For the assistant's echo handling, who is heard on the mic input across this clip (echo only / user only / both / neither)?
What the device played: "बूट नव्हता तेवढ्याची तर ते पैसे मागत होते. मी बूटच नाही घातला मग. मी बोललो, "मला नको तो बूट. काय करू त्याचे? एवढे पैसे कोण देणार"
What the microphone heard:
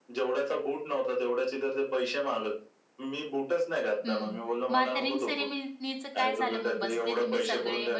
both